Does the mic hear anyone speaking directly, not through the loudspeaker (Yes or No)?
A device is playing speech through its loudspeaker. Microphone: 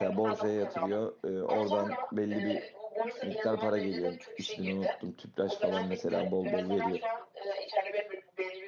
Yes